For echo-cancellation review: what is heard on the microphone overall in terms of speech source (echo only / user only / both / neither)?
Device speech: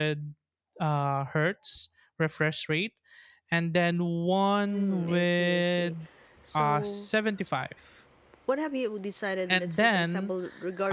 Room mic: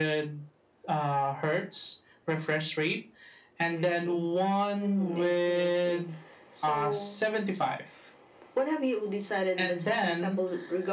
both